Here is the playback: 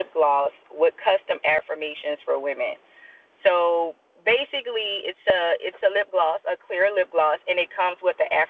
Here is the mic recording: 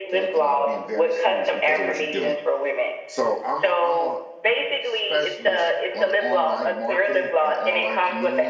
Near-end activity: present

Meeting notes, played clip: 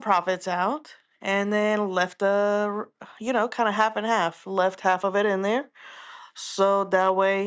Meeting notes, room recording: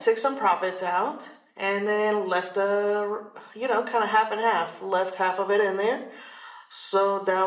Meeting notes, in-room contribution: none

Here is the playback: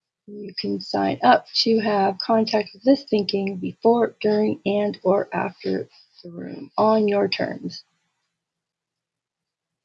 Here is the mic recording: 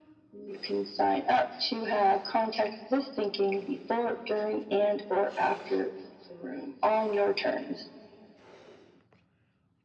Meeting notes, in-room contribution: none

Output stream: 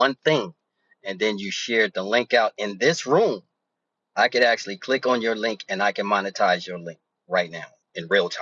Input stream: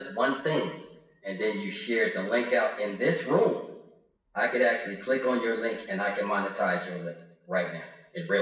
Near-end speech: none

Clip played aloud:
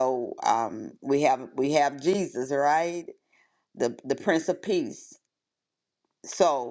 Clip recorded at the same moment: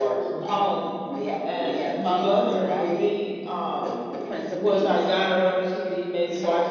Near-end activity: present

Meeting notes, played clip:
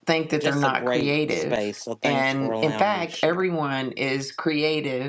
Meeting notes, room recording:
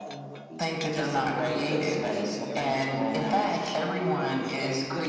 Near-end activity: present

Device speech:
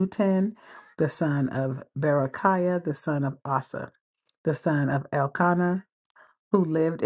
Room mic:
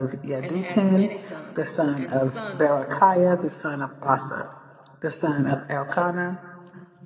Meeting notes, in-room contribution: present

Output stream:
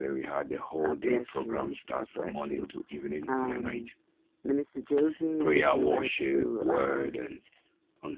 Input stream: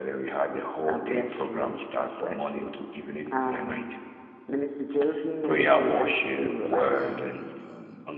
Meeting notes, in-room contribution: present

